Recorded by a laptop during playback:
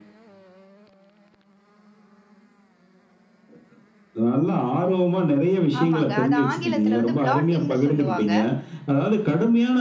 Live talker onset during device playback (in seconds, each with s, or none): 5.8 s